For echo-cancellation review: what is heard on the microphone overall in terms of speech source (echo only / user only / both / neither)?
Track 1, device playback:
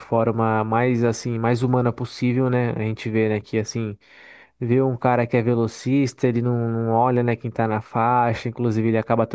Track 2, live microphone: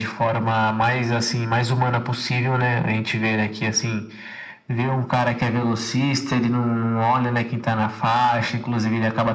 echo only